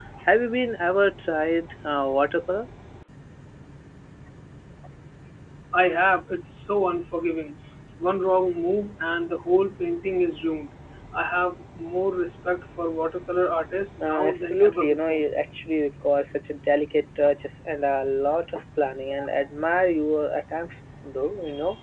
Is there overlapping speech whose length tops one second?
Yes, from 14.0 s

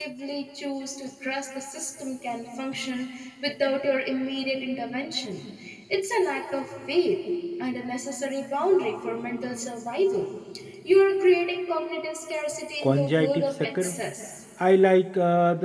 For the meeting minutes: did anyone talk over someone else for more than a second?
Yes, from 12.8 s

